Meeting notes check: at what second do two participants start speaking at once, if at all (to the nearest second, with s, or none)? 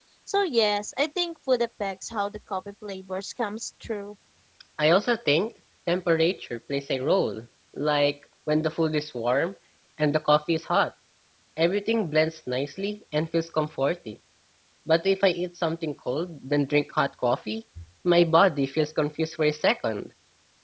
none